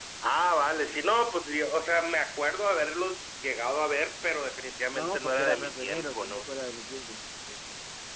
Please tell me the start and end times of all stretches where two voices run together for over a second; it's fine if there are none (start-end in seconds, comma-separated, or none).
4.9-6.4